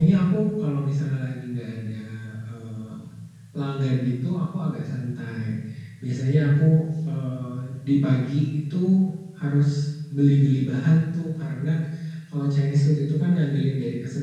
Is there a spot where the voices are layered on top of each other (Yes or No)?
No